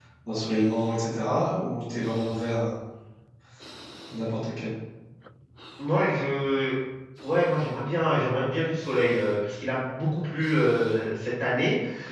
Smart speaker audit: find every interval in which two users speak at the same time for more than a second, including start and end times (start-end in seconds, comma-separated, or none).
none